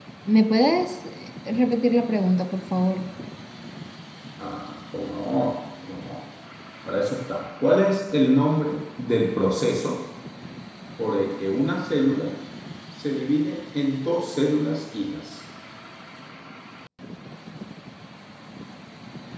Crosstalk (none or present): none